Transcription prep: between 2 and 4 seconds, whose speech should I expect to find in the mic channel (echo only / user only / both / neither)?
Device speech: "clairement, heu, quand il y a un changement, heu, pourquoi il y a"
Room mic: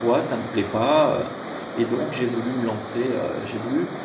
user only